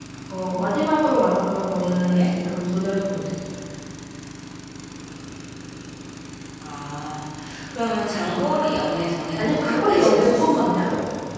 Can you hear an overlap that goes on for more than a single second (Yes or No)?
Yes